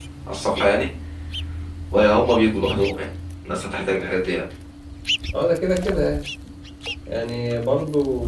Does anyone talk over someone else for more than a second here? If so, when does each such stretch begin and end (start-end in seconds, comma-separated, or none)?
none